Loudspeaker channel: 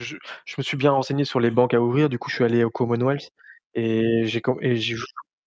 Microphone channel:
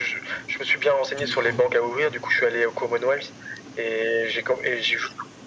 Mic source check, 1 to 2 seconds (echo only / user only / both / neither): both